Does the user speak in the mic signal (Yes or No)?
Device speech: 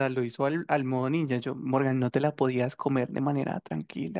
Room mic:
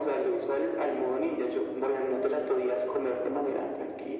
No